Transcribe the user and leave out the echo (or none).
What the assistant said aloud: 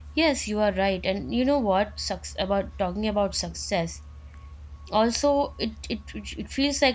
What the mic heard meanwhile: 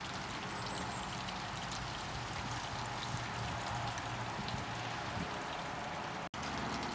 none